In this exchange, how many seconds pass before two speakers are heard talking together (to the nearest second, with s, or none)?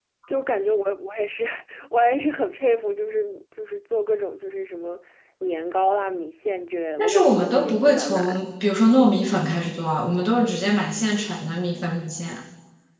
7 s